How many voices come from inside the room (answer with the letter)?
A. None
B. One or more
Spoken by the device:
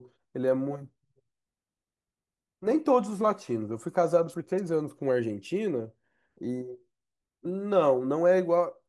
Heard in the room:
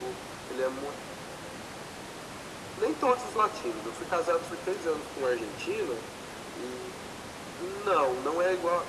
A